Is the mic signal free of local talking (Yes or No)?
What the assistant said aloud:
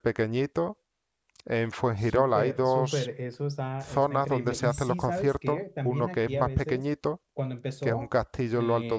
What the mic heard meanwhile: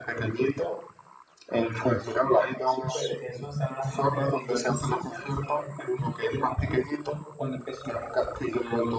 Yes